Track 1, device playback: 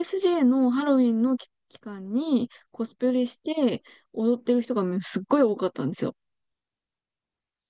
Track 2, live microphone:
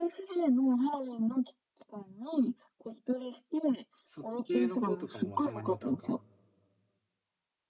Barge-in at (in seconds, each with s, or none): 4.0 s